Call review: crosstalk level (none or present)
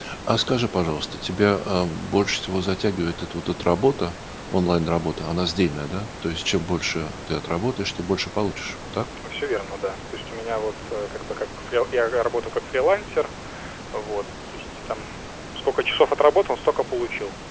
none